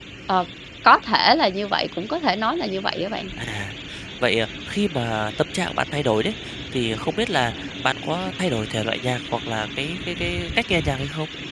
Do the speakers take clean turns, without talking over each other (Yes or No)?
Yes